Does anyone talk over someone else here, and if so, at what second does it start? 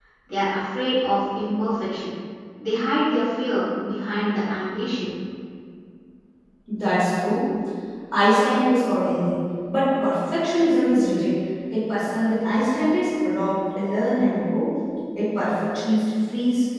none

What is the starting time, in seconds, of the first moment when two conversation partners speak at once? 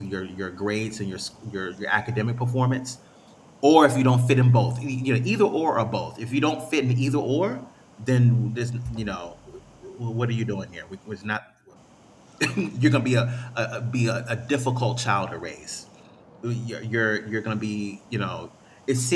none

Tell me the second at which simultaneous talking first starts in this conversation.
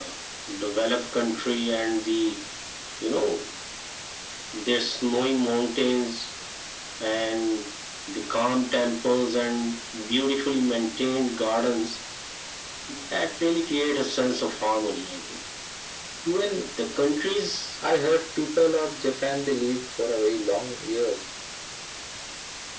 none

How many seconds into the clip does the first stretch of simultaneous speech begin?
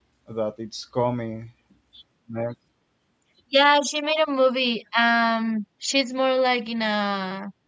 none

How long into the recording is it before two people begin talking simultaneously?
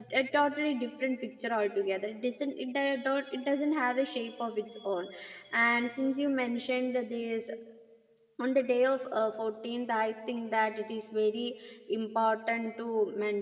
none

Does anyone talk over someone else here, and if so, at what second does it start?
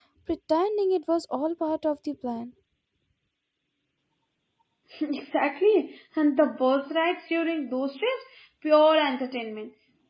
none

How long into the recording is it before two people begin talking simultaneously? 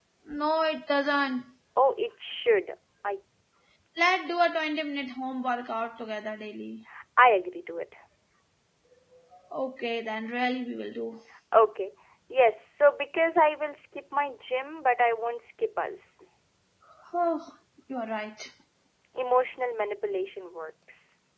none

